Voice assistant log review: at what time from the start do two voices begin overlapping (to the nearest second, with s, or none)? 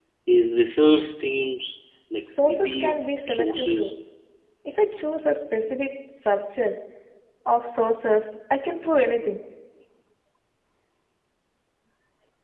2 s